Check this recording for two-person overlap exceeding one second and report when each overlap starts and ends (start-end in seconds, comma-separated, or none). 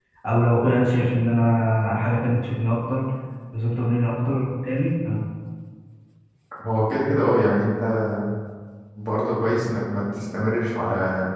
none